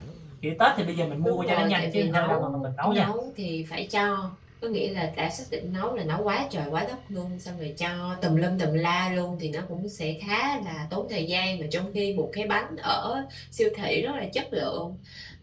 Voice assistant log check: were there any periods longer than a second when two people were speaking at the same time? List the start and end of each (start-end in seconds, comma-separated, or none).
1.2-3.0